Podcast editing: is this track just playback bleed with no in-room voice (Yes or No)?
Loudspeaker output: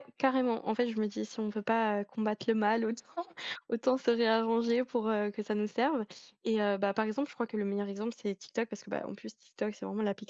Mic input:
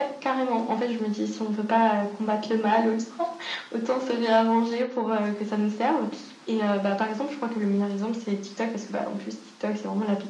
Yes